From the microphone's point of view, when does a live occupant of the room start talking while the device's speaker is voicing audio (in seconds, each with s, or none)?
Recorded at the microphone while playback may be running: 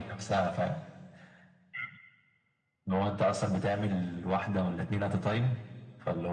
none